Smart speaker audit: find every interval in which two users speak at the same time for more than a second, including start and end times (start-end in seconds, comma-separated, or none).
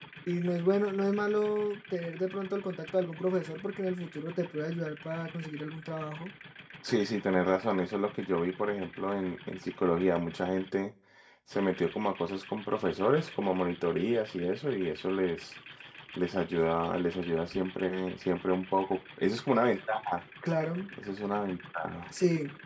none